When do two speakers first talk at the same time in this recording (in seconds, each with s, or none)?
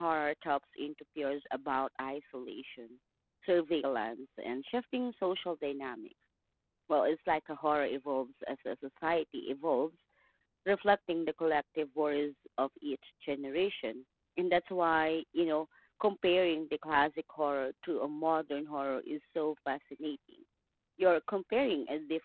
none